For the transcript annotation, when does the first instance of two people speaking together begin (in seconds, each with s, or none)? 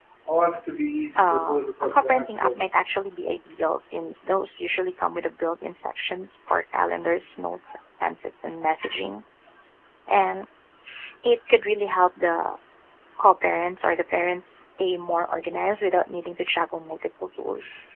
1.2 s